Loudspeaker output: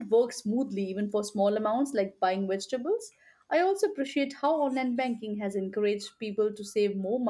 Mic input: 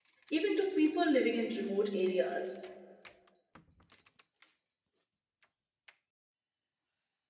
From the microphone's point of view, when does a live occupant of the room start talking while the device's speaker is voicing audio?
0.3 s

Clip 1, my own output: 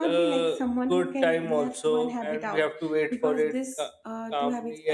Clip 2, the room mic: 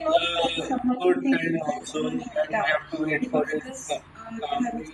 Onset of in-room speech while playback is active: none

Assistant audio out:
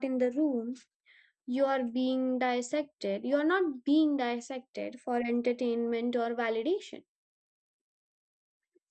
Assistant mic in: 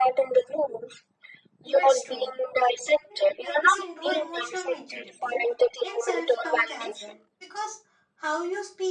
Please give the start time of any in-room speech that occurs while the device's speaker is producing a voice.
1.7 s

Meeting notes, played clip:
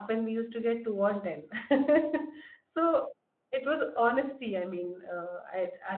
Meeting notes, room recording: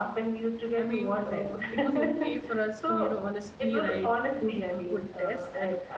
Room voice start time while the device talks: 0.8 s

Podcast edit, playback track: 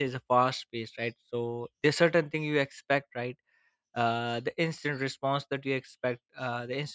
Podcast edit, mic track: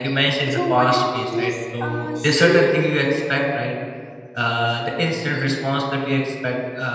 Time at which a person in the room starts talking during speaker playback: 0.5 s

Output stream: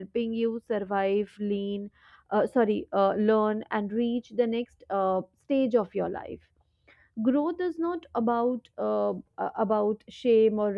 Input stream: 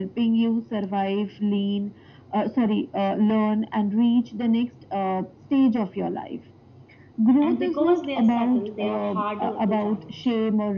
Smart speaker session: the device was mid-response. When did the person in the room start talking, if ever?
7.4 s

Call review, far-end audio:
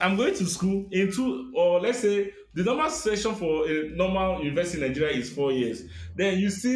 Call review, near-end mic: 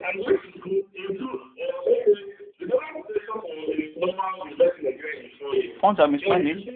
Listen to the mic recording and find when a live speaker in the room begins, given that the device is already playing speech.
5.7 s

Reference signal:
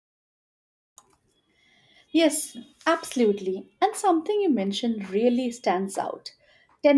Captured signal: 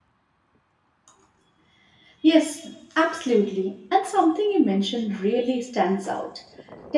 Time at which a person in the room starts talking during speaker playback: none

